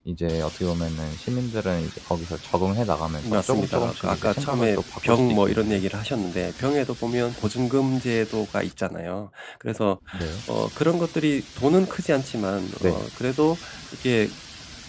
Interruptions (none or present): present